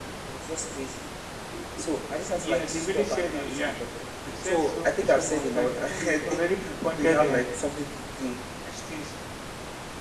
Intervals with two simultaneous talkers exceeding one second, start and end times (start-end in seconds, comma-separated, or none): 2.4-3.7, 4.4-7.4